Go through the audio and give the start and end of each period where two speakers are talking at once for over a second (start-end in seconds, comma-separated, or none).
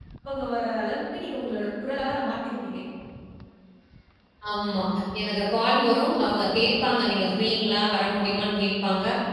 none